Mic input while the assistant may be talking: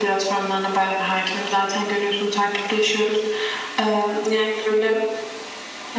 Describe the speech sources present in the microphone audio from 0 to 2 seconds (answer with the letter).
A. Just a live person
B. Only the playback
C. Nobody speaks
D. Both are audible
B